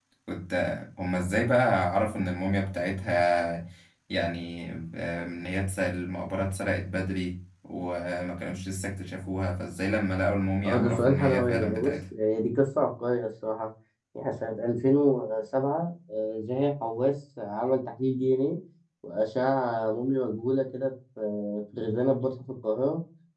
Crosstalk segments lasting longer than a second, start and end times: 10.6-11.9

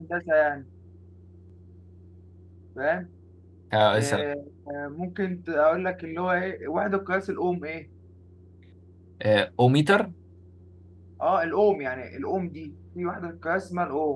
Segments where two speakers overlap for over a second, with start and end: none

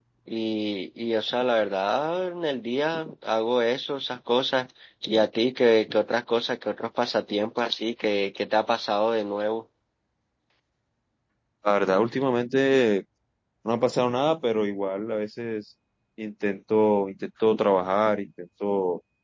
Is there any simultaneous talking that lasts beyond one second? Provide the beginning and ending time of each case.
none

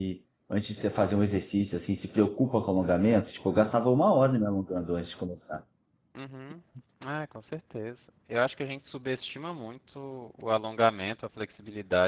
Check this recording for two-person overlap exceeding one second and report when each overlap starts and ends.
none

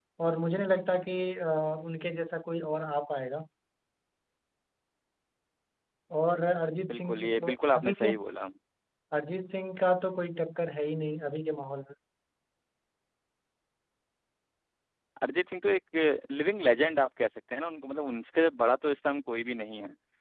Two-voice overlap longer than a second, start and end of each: 6.9-8.1

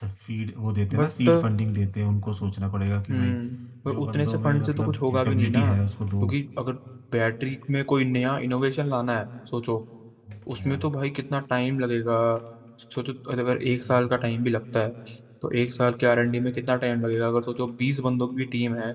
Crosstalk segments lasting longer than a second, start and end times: 3.9-5.6

